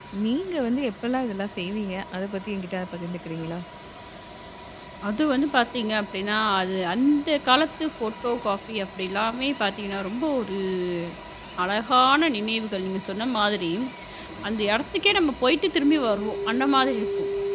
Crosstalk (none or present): none